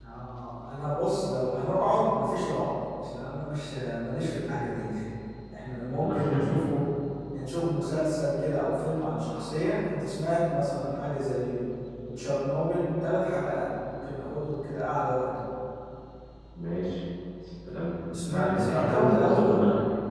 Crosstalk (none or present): present